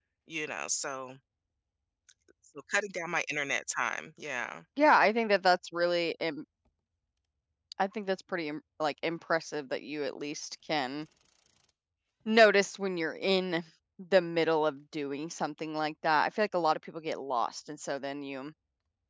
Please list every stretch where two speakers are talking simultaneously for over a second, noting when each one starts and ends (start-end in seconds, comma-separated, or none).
none